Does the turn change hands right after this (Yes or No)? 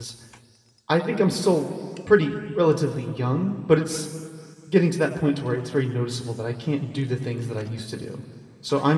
No